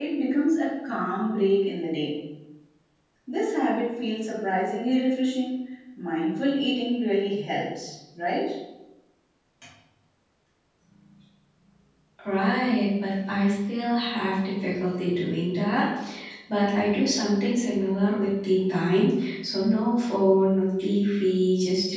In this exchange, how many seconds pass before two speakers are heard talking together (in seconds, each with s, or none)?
none